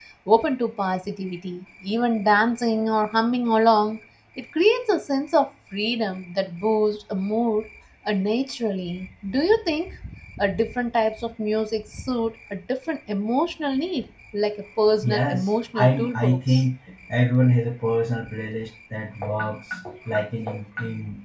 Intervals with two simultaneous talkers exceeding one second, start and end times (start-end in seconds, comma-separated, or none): 15.0-16.6